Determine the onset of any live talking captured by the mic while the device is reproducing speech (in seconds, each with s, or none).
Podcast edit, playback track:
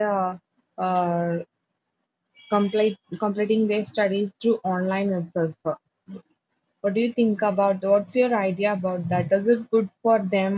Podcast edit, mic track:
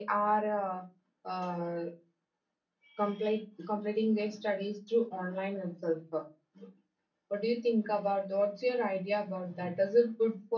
none